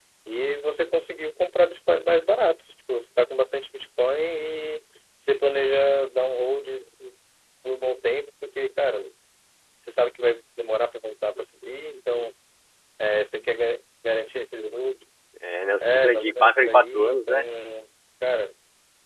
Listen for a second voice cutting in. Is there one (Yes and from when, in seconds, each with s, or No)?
Yes, from 15.8 s